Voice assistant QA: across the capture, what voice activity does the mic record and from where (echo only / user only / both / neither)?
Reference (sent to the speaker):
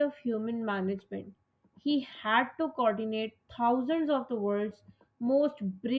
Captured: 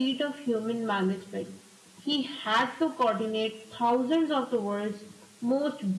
echo only